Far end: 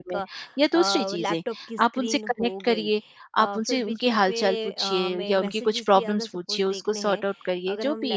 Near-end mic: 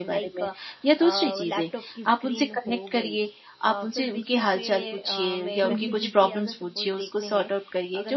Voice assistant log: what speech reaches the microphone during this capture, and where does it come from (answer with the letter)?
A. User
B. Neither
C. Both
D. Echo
C